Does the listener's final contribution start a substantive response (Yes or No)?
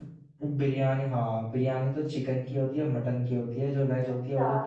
Yes